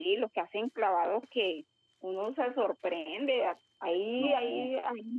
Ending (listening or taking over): listening